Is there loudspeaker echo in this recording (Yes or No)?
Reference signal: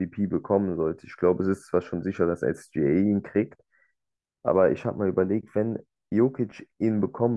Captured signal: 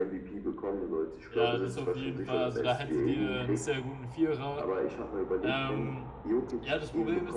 Yes